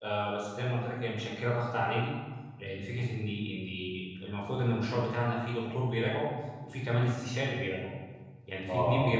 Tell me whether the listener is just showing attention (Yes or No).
Yes